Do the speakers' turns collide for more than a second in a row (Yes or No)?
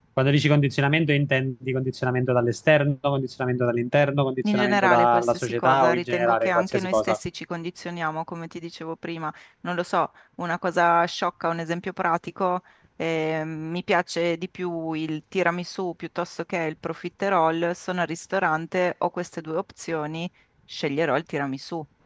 Yes